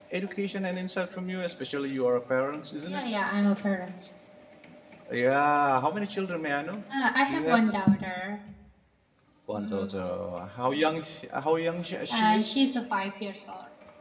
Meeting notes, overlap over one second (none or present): none